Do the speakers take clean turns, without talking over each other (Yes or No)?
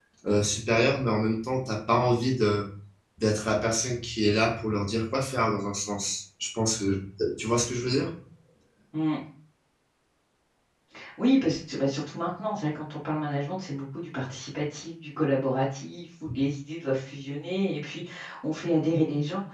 Yes